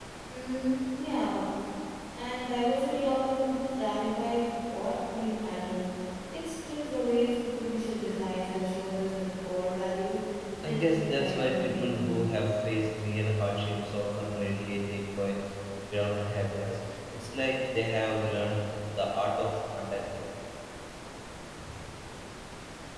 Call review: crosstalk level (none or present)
present